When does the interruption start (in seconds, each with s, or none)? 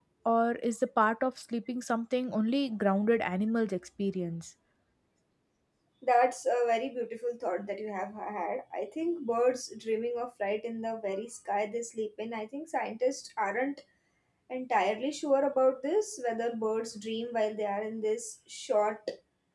none